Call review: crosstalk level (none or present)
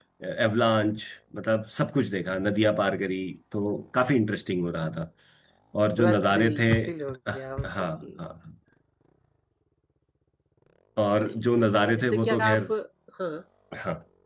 present